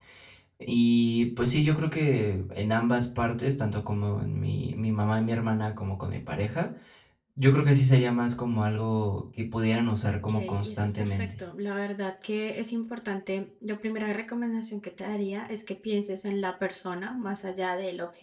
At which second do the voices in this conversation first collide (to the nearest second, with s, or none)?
10 s